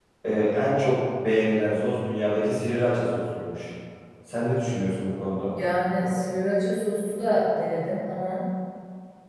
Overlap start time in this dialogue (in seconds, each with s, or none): none